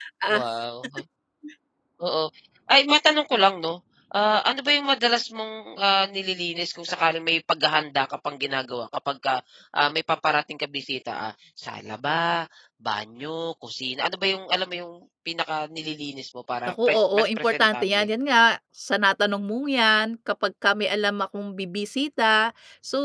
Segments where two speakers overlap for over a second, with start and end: 16.9-18.1

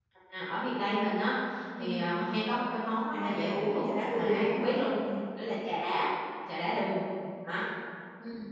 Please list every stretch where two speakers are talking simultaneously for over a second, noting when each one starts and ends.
3.1-4.9

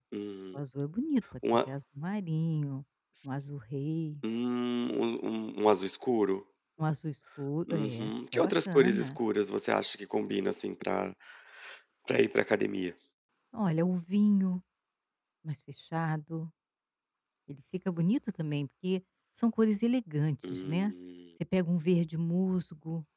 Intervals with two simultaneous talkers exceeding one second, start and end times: 7.7-9.2

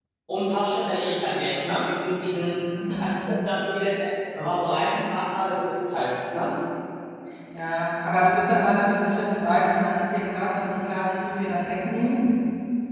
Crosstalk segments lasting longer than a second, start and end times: none

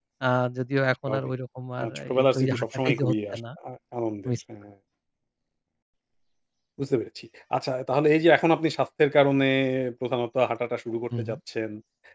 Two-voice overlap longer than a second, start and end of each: 1.8-3.4

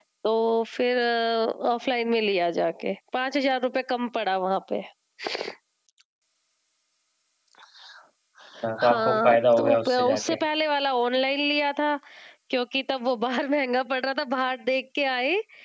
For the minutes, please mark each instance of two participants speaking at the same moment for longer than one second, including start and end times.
8.8-10.4

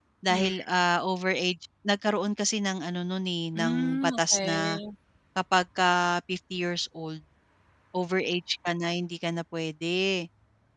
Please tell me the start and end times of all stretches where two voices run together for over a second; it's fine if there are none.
3.5-4.8

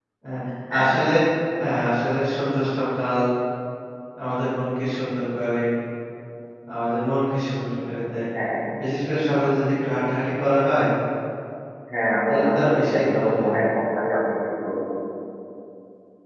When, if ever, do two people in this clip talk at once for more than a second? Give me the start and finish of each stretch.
12.3-13.6

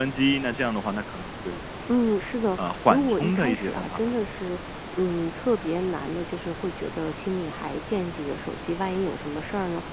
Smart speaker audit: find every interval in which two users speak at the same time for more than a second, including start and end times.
2.6-4.1

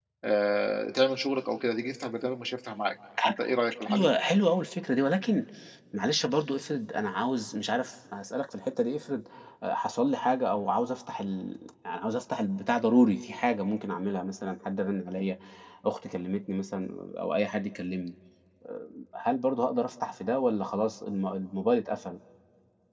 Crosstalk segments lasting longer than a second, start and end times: none

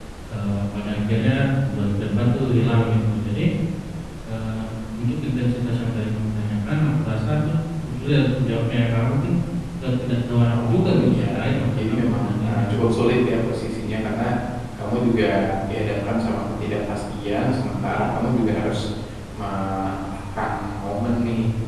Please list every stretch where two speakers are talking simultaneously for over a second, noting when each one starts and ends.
10.5-12.8

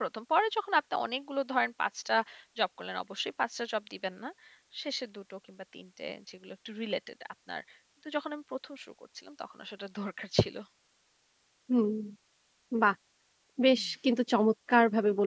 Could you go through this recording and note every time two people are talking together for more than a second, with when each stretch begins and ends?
none

